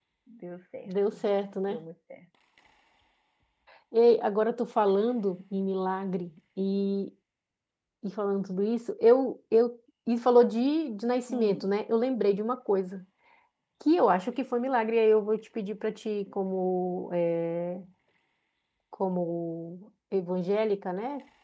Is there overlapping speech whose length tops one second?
No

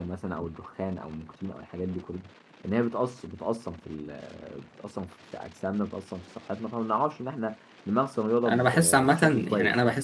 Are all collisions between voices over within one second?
No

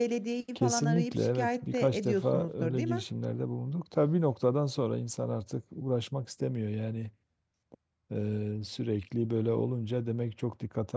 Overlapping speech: Yes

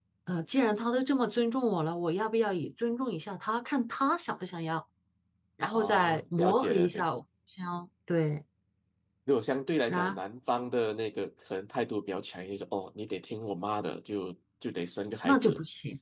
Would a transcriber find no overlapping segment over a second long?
No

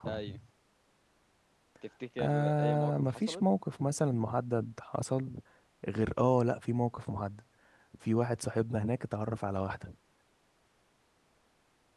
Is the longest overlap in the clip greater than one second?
Yes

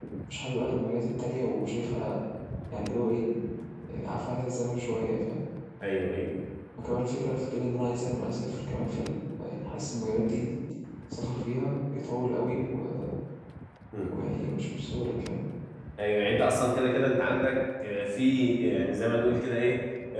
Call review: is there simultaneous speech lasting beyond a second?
No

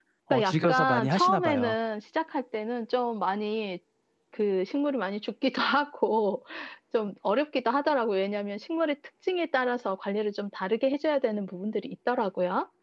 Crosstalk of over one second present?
Yes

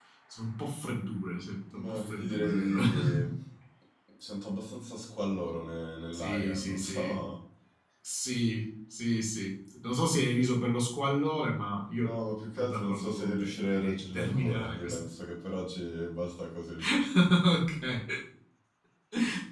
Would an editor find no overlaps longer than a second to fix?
No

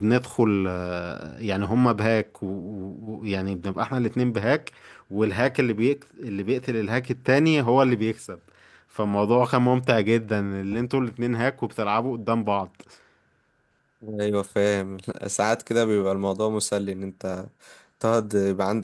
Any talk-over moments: No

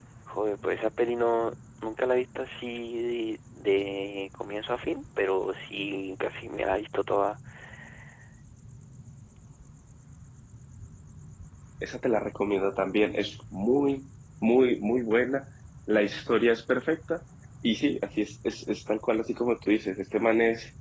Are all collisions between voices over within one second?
Yes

